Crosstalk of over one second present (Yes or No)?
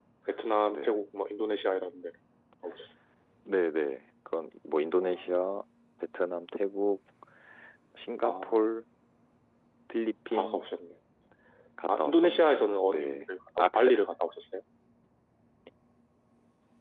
Yes